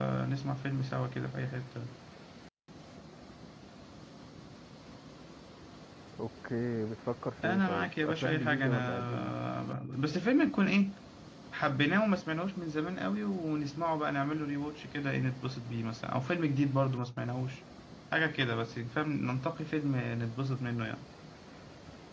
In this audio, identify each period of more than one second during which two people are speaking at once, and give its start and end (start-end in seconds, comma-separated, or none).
7.4-9.3